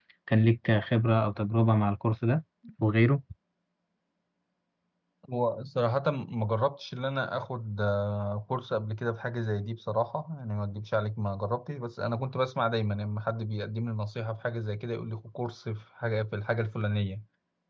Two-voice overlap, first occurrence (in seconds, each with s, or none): none